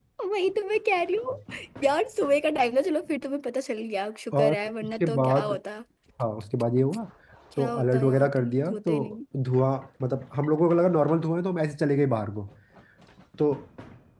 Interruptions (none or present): present